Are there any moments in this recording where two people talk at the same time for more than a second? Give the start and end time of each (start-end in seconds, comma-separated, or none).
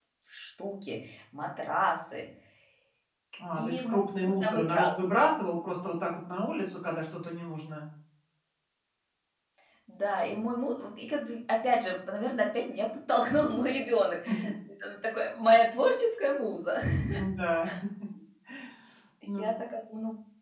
3.5-5.0